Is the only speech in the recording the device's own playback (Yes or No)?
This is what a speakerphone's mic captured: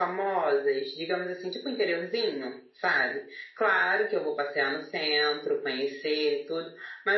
Yes